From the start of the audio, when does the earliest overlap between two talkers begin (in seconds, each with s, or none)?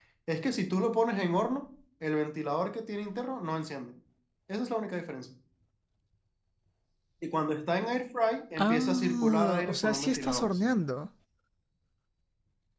8.6 s